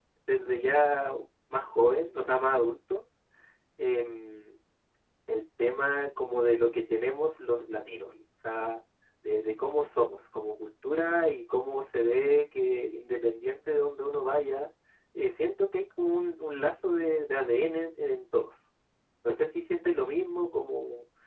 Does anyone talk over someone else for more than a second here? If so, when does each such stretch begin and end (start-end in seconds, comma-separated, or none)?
none